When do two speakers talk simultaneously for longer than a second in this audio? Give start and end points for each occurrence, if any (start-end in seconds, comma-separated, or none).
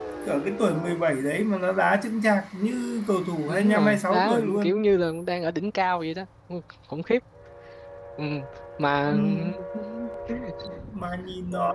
3.5-4.8